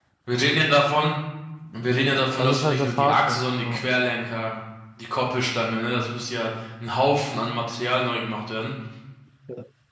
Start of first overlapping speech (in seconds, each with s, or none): 2.4 s